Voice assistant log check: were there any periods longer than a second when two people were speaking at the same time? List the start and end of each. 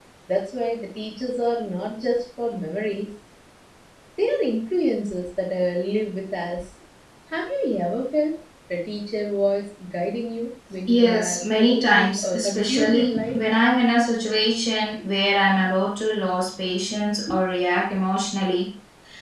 10.9-13.4

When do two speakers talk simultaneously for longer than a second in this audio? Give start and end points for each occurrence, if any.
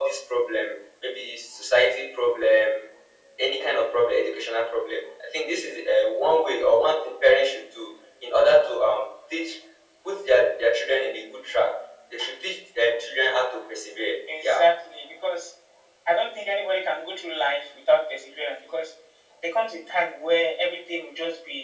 none

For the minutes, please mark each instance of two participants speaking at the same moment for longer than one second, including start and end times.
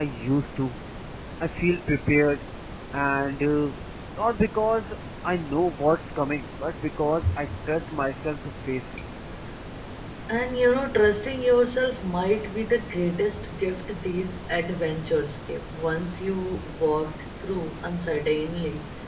none

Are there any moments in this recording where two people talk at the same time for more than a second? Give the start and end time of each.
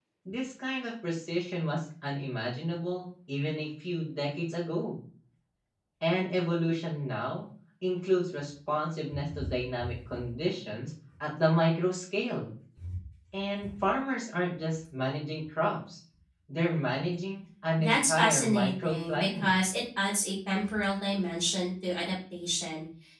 17.8-19.6

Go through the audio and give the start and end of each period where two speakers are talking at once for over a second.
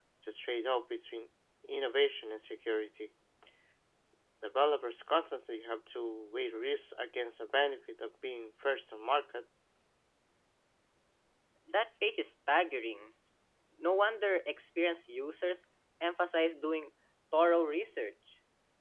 none

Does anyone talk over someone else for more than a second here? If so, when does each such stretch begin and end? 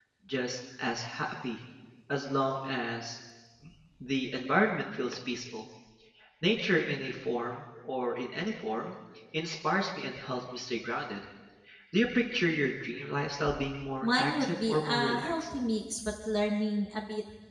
14.0-15.4

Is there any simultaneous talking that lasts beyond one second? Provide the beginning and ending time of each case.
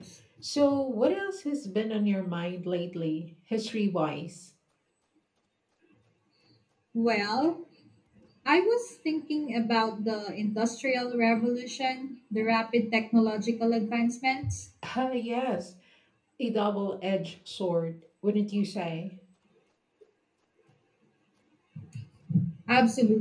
none

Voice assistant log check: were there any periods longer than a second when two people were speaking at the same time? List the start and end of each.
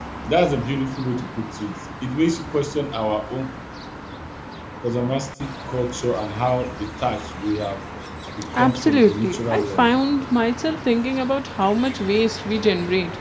8.6-9.9

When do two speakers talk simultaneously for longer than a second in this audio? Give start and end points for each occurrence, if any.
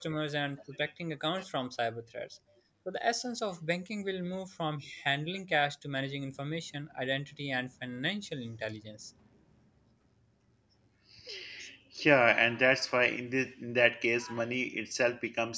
none

